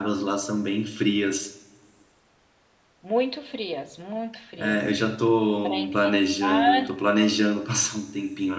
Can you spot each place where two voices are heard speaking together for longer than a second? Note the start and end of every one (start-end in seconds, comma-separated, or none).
5.6-6.9